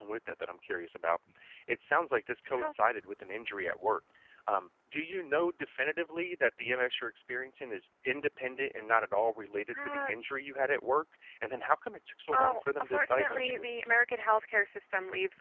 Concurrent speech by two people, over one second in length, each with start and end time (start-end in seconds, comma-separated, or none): 12.3-13.9